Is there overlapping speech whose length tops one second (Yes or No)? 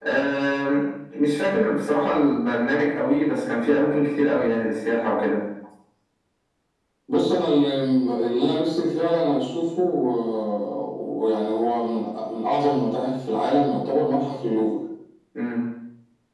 No